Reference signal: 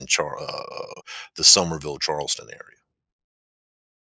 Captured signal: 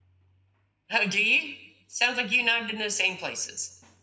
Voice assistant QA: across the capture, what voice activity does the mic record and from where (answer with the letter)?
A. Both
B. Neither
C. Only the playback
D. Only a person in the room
D